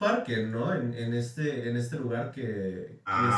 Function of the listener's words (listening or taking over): taking over